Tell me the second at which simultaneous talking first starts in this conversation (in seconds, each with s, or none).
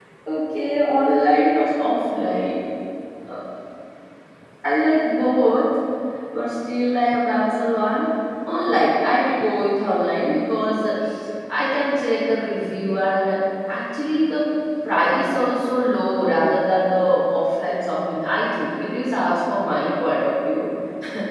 none